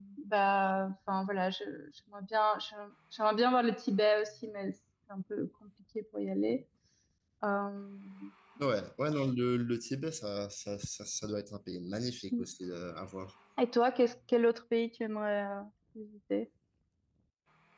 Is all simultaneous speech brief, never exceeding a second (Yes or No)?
Yes